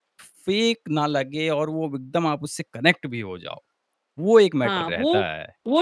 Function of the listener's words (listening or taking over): taking over